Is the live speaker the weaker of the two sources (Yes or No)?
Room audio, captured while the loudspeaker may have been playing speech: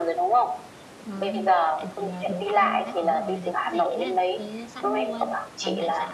Yes